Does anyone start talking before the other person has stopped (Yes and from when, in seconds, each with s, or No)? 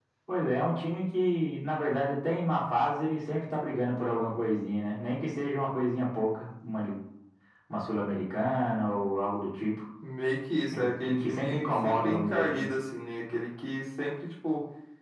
Yes, from 10.7 s